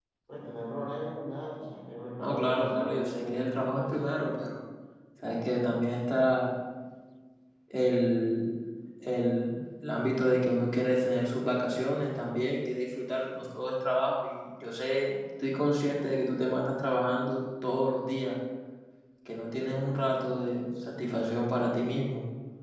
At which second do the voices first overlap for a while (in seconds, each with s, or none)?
2.2 s